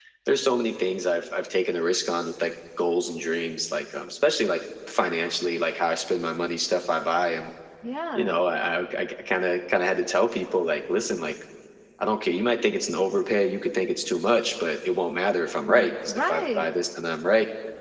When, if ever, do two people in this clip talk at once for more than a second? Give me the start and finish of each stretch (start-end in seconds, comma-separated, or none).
15.5-16.7